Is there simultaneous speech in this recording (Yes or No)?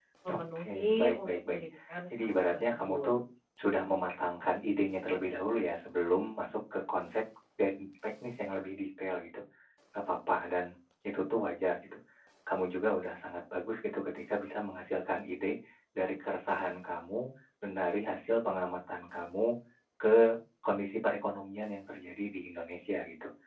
Yes